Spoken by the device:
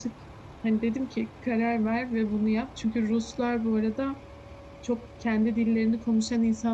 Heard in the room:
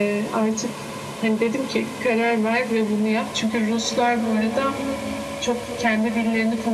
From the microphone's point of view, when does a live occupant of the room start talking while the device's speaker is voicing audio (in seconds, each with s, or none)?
none